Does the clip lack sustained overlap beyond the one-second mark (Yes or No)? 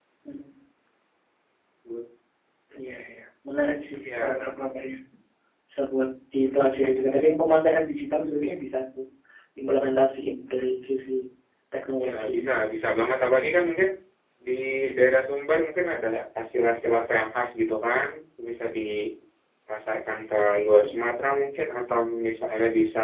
Yes